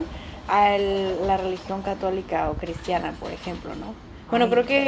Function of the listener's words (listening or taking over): listening